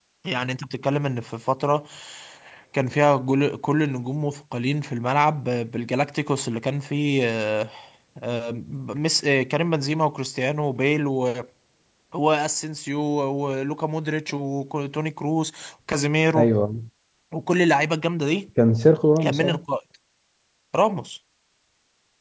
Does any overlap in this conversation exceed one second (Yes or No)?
No